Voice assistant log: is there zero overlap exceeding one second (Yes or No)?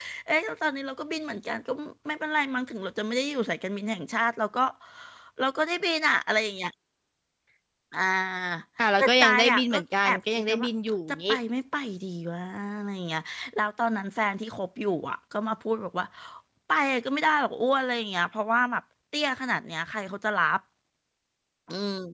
No